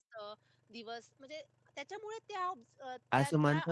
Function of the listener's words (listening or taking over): taking over